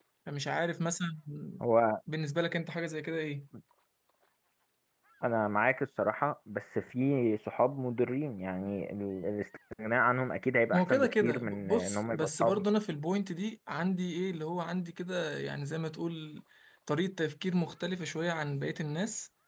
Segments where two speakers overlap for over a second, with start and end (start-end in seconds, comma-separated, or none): 10.7-12.6